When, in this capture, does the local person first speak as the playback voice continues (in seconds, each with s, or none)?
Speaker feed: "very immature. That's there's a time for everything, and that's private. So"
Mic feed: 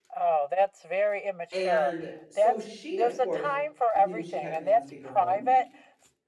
1.5 s